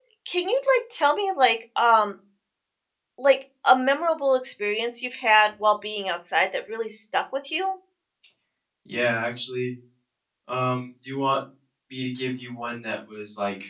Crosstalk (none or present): none